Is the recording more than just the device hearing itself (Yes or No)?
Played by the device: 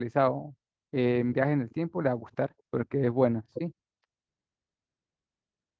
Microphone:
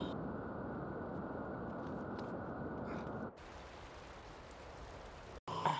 No